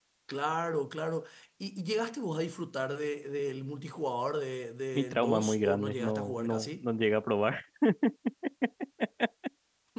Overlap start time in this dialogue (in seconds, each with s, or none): 4.9 s